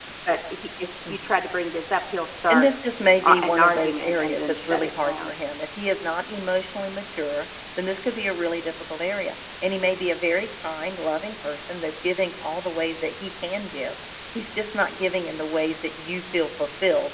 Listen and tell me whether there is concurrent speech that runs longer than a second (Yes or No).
Yes